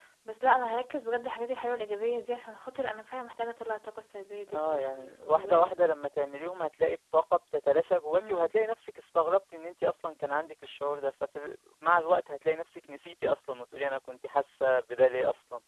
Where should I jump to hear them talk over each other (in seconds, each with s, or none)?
4.5 s